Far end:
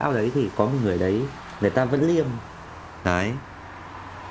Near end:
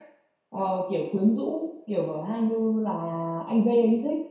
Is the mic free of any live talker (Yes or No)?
No